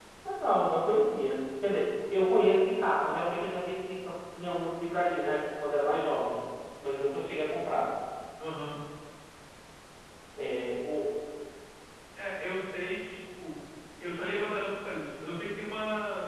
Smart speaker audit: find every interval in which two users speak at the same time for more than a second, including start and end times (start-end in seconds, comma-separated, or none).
none